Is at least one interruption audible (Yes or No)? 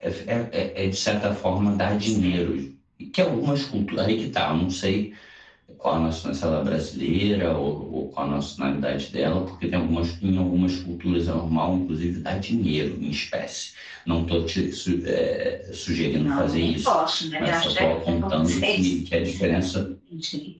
Yes